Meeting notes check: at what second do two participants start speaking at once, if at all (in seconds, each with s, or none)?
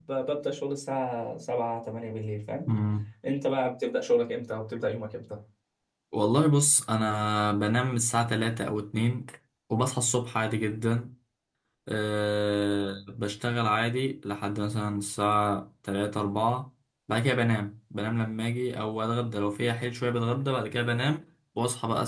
none